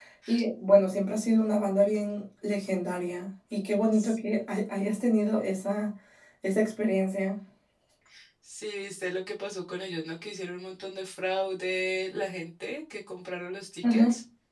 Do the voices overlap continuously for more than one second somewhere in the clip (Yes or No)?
No